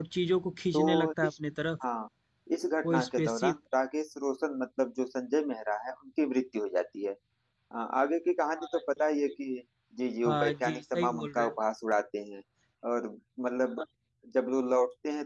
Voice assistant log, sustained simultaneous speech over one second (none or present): present